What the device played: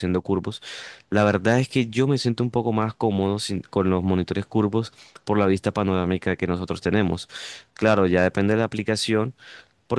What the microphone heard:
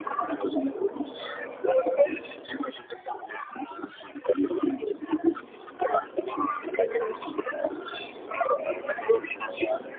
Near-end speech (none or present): none